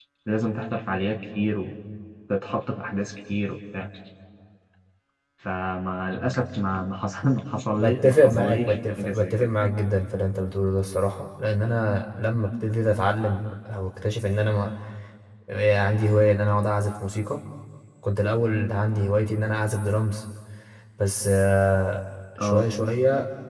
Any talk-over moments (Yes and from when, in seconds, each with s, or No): Yes, from 7.7 s